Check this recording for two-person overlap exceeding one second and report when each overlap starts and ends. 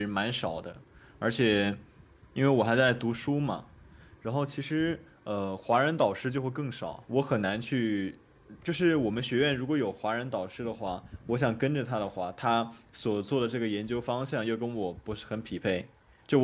none

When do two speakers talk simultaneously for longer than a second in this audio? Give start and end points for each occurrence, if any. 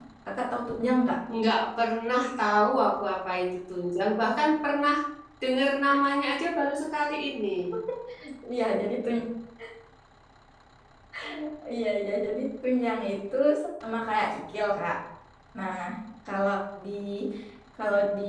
none

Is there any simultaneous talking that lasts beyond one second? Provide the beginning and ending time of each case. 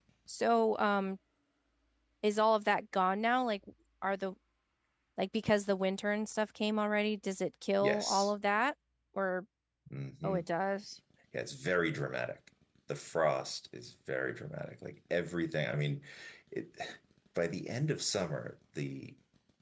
none

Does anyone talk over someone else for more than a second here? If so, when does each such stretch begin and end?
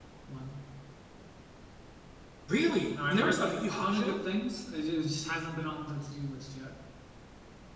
2.9-4.2

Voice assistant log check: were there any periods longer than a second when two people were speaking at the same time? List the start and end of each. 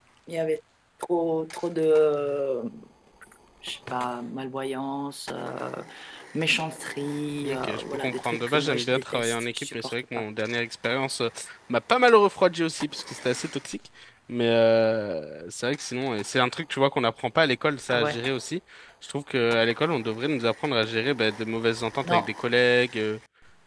7.4-10.2

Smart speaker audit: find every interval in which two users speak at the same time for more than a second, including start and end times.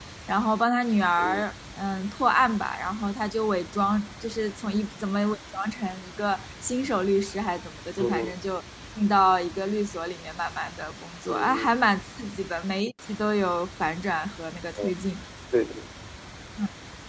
none

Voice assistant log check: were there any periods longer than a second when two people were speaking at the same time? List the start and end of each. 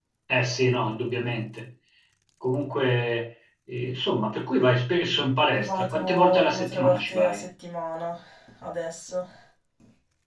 5.7-7.5

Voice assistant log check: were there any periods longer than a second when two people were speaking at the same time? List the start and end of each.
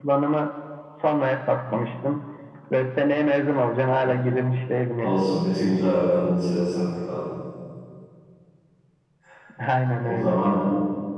none

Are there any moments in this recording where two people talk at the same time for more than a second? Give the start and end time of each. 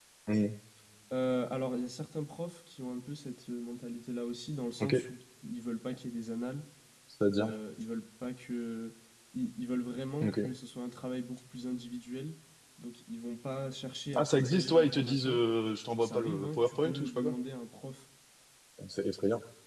14.2-15.4, 16.0-17.4

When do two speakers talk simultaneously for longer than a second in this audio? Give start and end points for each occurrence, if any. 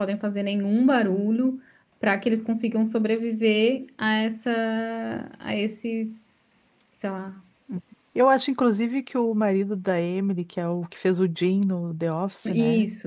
none

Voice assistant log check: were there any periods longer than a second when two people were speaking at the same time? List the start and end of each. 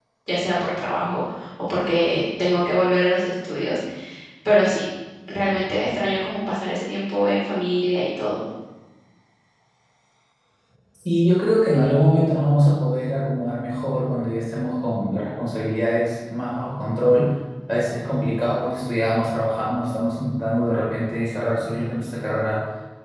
none

